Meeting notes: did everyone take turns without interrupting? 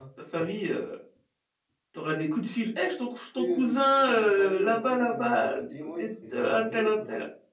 No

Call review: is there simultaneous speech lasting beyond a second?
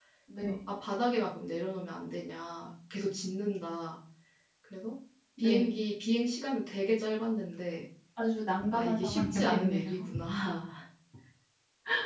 Yes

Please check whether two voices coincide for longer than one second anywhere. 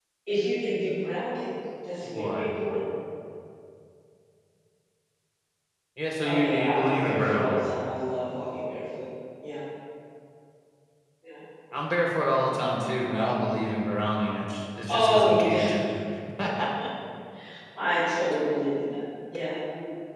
Yes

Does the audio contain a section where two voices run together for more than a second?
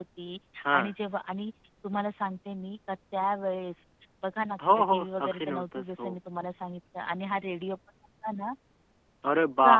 Yes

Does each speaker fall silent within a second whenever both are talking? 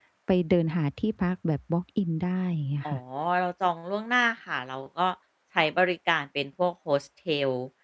Yes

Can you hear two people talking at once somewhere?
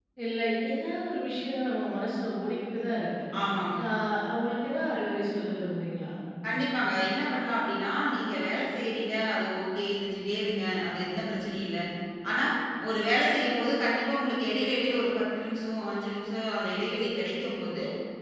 No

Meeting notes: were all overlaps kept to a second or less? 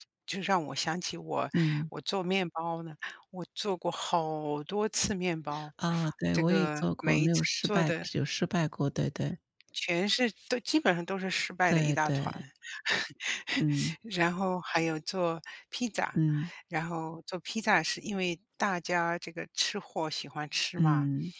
No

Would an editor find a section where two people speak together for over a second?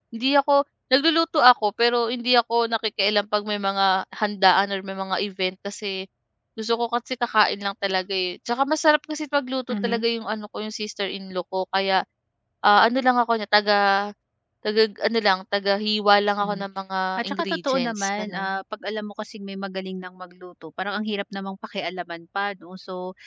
Yes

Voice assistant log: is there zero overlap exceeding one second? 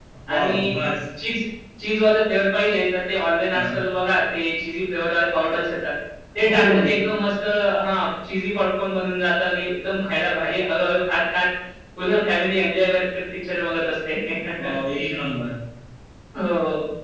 Yes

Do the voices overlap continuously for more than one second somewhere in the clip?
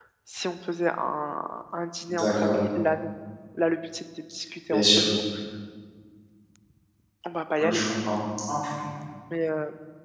No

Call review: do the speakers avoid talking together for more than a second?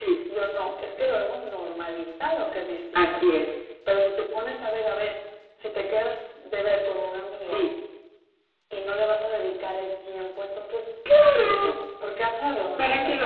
Yes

